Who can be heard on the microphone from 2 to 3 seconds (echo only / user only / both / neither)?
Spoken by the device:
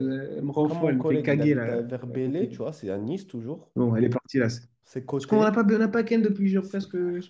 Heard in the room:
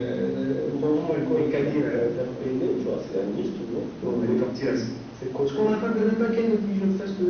echo only